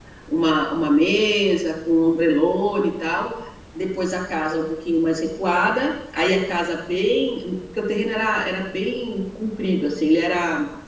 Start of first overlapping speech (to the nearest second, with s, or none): none